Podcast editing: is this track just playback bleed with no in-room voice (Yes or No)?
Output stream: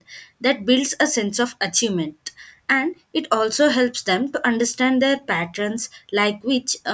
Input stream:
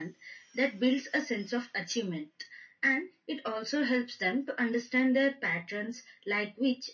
Yes